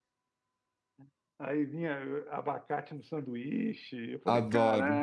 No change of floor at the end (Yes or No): No